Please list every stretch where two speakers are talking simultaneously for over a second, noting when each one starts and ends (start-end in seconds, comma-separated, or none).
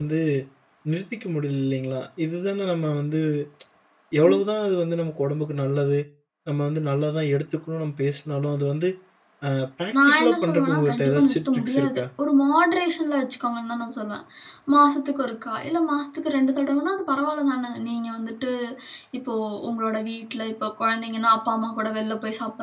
10.1-12.0